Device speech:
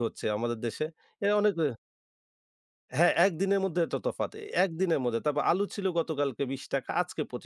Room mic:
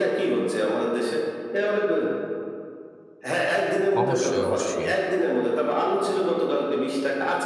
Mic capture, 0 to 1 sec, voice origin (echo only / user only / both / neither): echo only